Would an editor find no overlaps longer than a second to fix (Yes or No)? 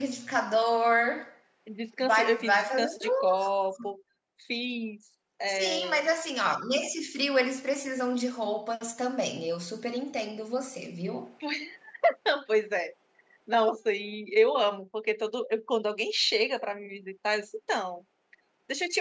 No